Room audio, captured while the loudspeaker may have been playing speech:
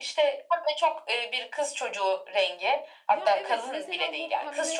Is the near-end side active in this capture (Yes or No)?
Yes